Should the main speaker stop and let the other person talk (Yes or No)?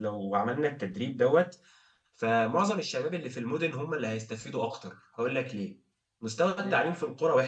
No